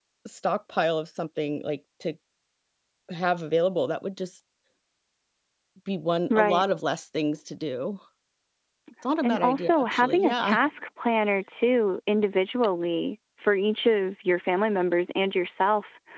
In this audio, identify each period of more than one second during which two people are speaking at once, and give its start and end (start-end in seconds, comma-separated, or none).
9.2-10.6